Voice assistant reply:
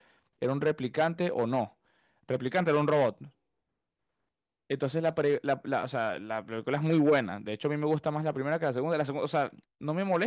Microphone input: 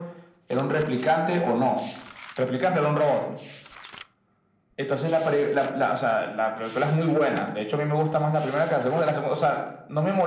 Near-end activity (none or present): none